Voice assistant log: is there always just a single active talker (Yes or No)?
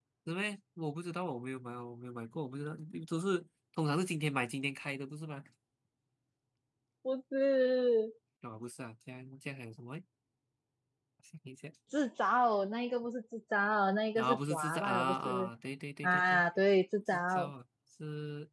No